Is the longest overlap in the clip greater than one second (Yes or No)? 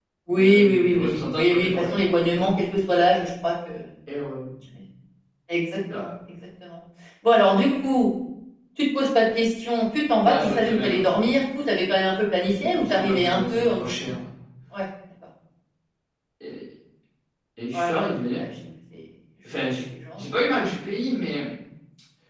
Yes